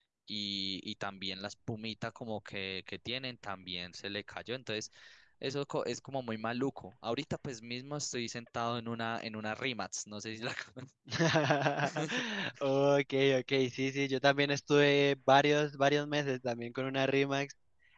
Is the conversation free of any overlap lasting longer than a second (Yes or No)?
Yes